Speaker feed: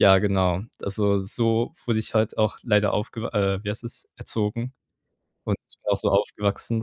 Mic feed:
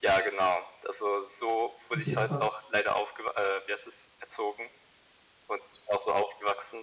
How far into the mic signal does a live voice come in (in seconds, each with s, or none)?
1.9 s